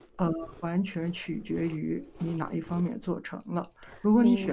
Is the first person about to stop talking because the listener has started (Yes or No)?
No